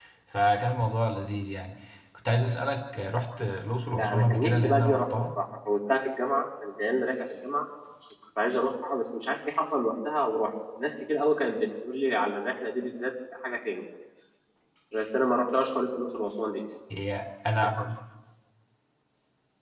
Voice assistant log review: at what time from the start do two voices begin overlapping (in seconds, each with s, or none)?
3.9 s